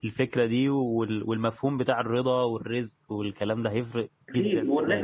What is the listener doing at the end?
taking over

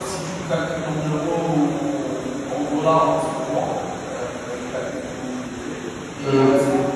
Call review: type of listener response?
listening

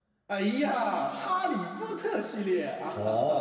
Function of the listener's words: taking over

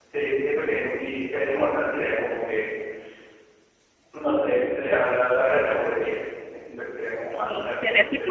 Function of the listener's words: taking over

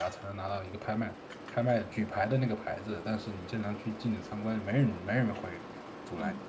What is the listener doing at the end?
taking over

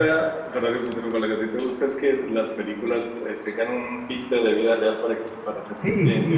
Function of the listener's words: taking over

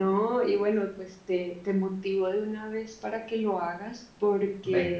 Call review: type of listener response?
listening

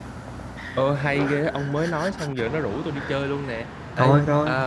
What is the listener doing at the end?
listening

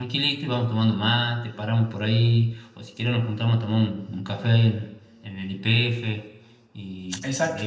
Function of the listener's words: taking over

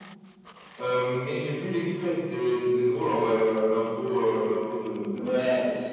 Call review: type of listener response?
taking over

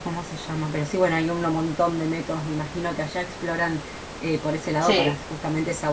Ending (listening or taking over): listening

